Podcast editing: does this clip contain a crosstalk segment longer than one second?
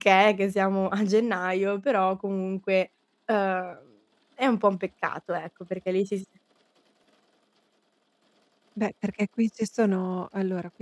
No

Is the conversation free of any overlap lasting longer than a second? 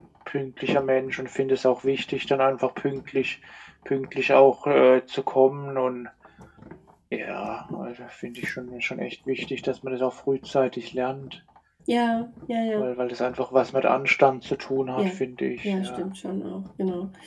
Yes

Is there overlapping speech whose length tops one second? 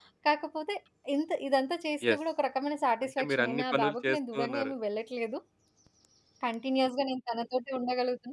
Yes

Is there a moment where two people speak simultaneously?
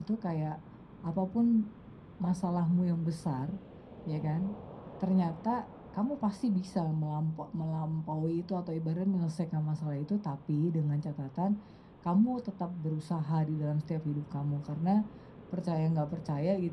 No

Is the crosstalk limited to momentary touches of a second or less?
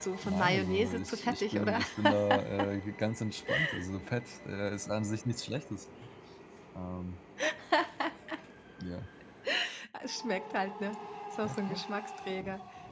No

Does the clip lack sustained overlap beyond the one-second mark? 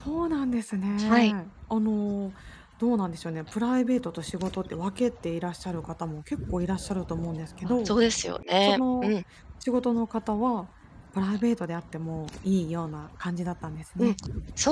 Yes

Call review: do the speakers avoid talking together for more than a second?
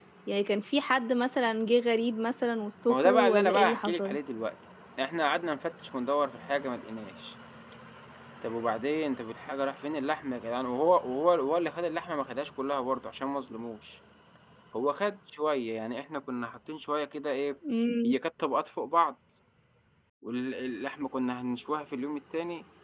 No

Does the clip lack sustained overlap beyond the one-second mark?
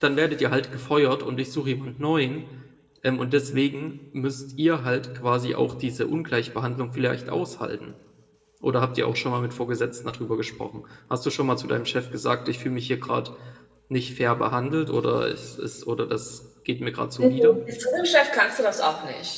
Yes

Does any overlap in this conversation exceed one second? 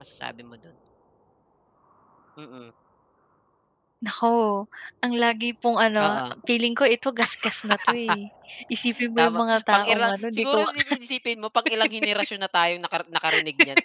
Yes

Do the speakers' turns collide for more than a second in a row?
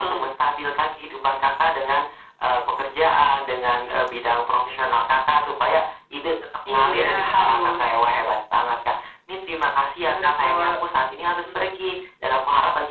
Yes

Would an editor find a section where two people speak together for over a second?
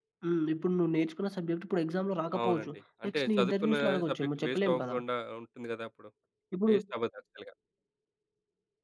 Yes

